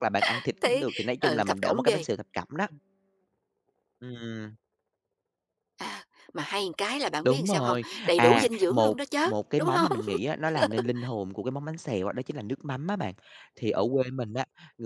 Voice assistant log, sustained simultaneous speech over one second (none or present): present